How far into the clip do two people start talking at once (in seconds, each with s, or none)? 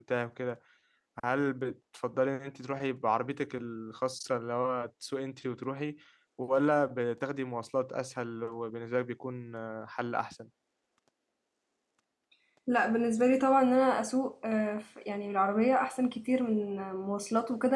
none